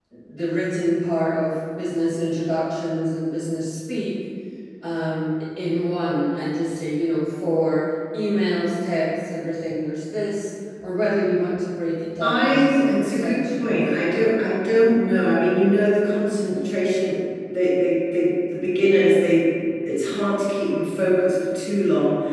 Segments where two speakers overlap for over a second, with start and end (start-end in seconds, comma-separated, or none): 12.2-13.8